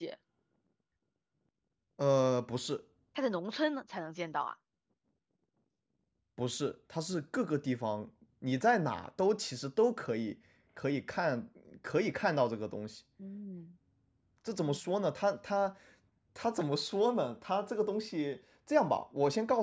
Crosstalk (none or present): none